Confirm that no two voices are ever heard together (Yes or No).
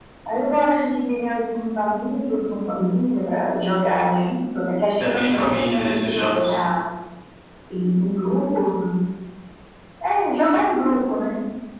No